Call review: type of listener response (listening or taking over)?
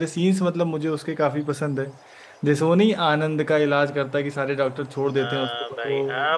taking over